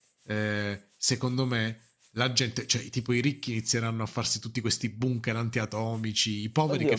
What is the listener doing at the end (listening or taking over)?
taking over